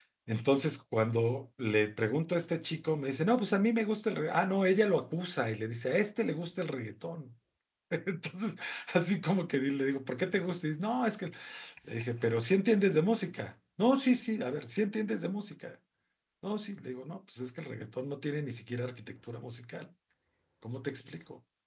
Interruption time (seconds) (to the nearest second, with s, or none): none